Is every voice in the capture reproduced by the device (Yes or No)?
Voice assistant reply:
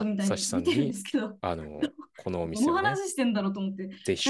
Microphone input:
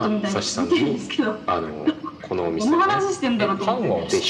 No